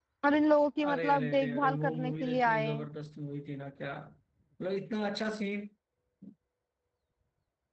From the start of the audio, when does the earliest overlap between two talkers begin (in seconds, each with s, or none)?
0.9 s